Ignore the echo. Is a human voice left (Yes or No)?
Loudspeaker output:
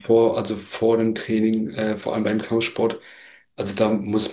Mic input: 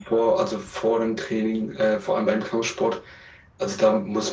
No